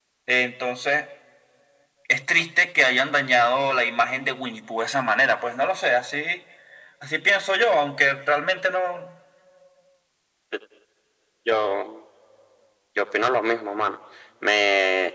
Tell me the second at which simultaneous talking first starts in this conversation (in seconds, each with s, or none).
none